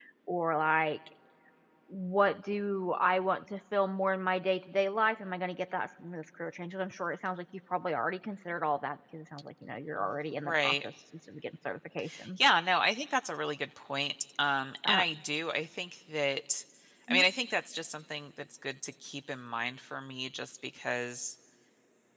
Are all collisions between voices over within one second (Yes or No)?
Yes